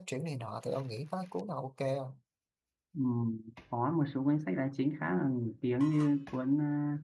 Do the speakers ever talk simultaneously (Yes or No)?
No